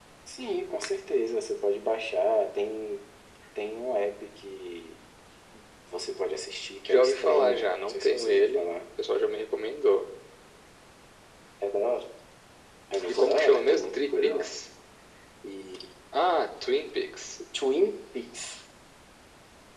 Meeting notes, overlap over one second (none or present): present